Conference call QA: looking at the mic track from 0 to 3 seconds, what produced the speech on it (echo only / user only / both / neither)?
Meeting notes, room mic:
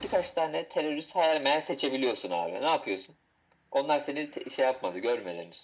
echo only